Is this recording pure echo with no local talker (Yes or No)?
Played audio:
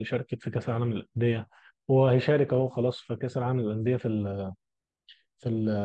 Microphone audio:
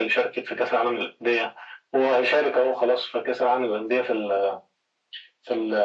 Yes